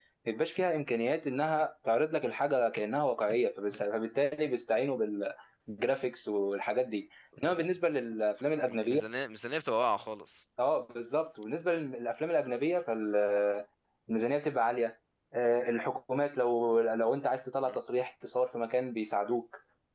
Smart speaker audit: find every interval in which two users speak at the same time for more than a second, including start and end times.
none

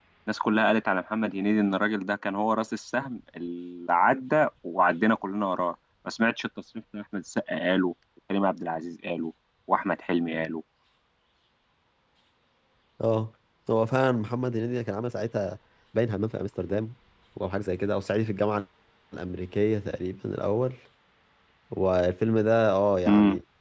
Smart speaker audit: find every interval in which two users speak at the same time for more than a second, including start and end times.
none

